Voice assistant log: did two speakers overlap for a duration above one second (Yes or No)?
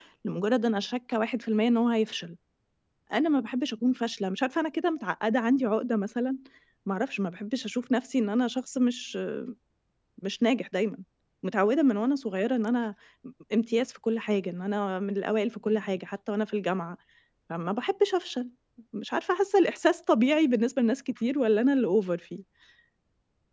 No